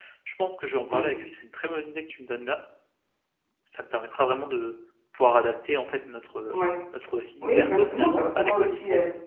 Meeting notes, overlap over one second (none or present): present